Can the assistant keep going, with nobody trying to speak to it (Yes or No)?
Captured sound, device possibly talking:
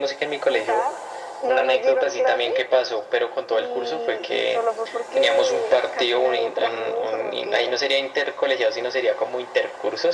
Yes